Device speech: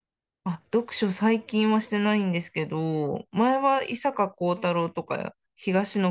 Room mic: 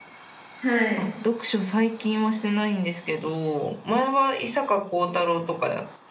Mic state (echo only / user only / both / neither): both